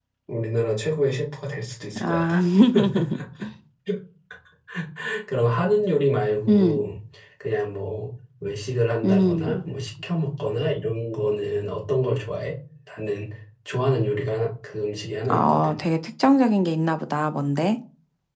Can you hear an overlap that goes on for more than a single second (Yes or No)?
No